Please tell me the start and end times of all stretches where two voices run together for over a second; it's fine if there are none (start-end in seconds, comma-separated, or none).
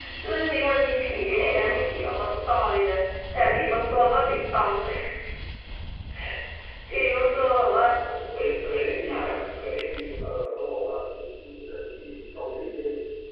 none